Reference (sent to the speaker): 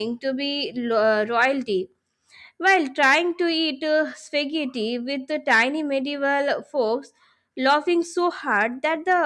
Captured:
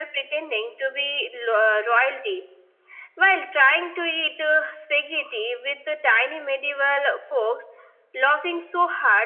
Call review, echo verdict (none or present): present